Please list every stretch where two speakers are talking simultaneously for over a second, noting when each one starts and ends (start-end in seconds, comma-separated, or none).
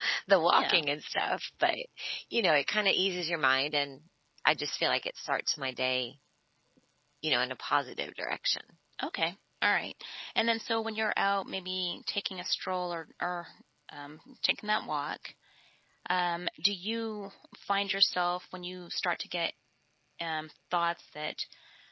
none